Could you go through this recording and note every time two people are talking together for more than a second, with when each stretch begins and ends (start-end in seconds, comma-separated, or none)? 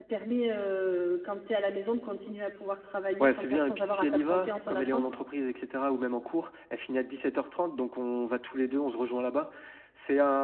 3.2-5.1